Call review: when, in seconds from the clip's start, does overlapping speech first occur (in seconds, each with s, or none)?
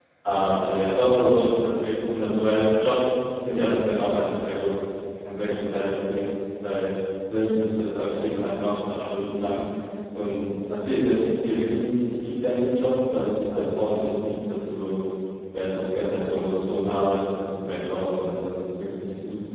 none